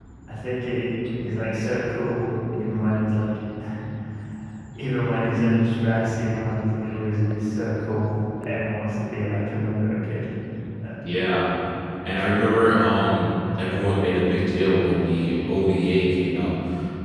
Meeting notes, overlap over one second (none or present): none